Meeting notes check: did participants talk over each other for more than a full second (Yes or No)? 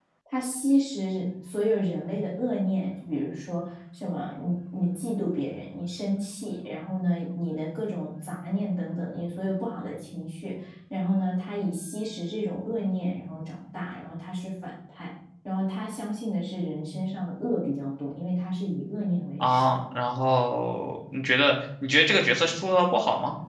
No